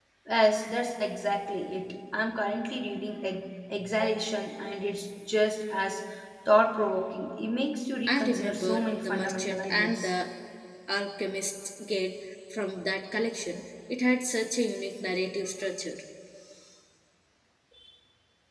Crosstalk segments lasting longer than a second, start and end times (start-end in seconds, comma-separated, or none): 8.1-10.1